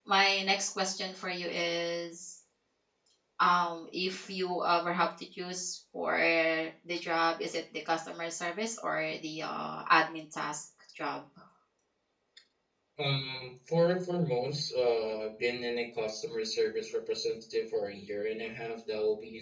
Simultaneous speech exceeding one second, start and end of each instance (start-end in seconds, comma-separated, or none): none